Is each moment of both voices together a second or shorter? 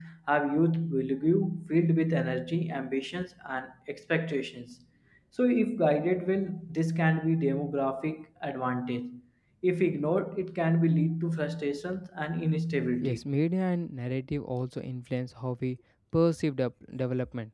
Yes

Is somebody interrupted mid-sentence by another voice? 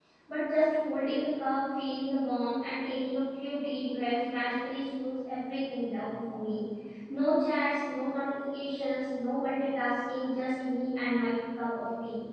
No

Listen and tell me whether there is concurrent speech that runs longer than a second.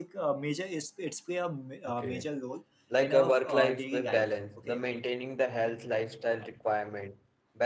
Yes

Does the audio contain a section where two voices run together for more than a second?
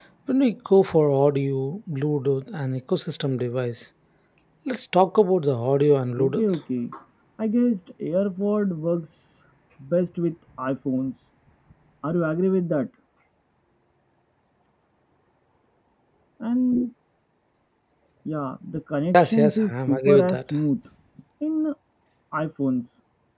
Yes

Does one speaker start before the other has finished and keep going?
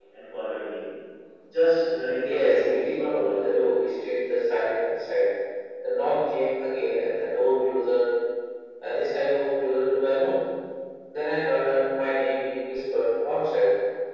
Yes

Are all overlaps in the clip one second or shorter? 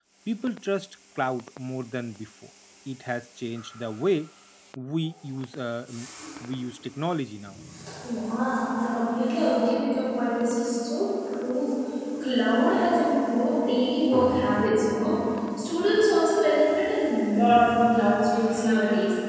Yes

